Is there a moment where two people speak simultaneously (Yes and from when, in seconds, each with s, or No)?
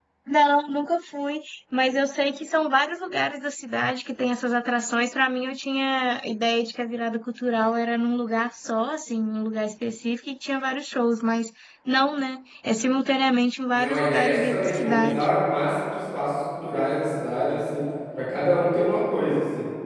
Yes, from 13.7 s